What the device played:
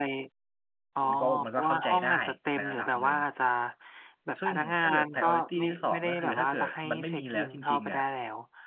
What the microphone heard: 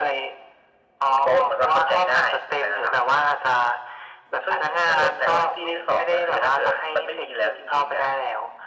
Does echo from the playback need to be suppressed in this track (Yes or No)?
Yes